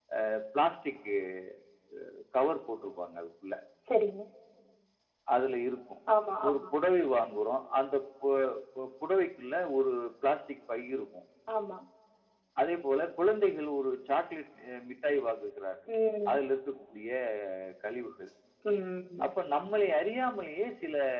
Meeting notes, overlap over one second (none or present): none